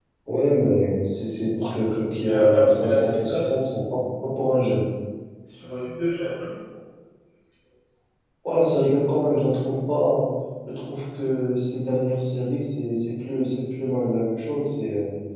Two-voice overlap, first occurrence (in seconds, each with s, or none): 2.2 s